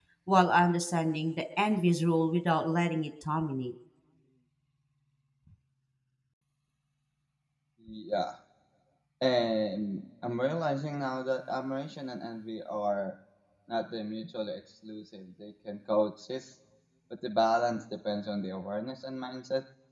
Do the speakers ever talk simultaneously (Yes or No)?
No